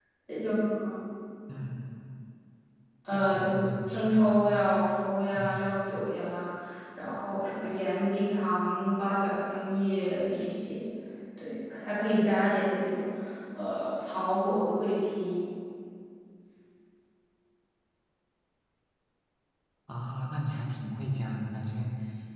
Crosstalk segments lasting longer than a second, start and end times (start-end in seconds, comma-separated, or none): 3.1-4.5